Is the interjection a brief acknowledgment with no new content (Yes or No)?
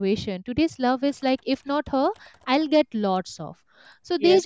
No